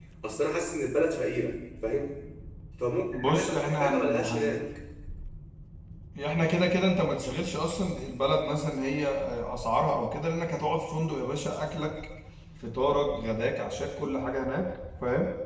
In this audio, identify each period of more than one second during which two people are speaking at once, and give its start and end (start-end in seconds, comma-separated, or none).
3.1-4.5